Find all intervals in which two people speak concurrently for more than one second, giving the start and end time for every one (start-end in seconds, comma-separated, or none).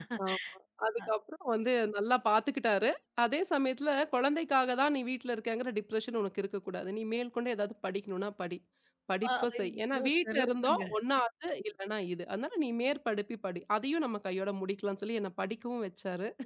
9.4-10.8